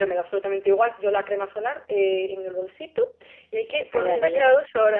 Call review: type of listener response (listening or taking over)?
listening